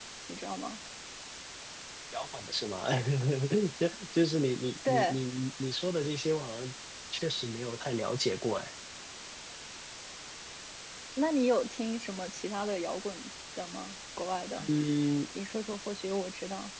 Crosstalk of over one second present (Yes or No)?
No